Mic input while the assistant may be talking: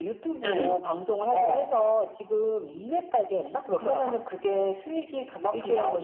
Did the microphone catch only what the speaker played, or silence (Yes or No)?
No